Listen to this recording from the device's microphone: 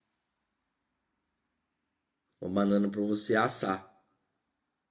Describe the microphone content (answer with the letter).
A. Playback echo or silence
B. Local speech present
B